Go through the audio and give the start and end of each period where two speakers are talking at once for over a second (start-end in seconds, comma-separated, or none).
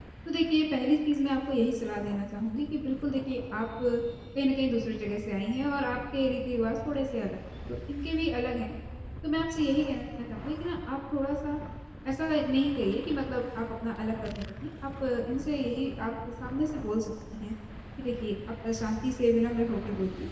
none